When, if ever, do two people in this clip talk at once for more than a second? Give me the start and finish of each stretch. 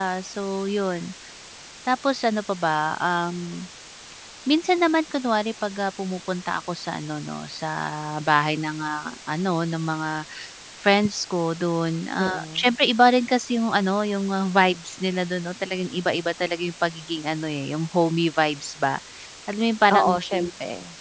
none

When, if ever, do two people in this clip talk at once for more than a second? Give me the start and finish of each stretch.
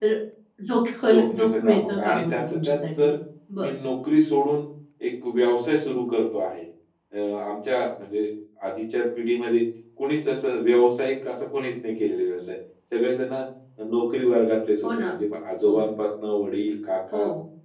1.1-3.1

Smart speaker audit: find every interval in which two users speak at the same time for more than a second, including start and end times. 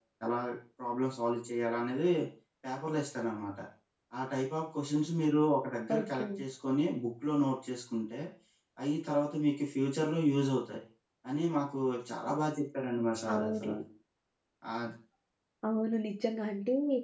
none

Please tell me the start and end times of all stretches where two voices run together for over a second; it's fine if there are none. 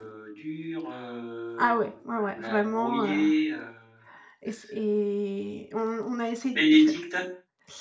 1.6-3.2

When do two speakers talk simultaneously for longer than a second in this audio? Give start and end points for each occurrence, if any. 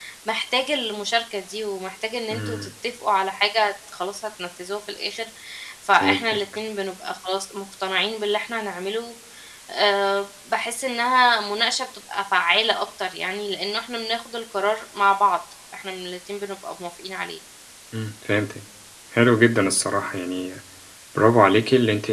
none

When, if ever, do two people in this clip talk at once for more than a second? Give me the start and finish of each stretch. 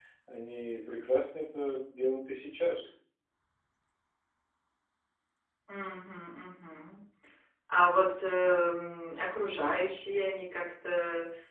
none

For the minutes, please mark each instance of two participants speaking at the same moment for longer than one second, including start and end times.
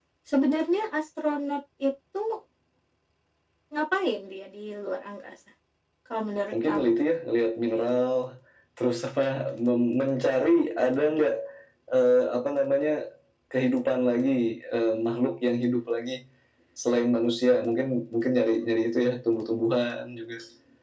none

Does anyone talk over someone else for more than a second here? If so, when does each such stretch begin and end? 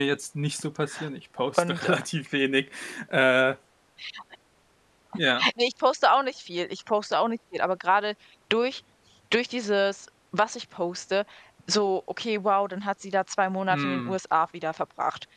none

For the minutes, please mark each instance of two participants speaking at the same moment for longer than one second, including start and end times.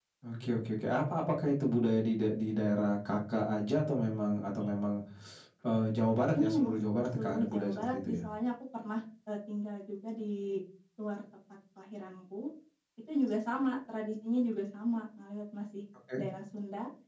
6.3-8.2

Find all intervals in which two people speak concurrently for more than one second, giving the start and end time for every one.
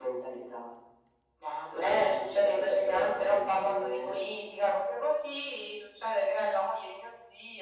1.7-4.2

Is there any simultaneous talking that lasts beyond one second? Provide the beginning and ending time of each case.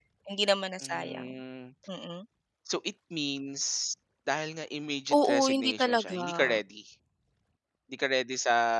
5.1-6.6

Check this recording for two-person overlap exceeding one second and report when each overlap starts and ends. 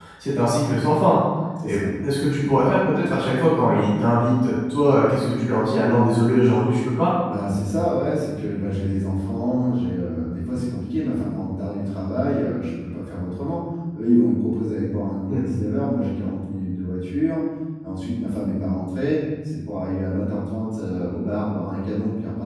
none

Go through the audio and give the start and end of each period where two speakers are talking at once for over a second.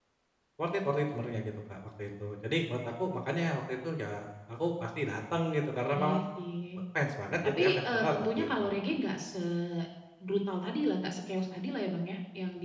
7.4-8.7

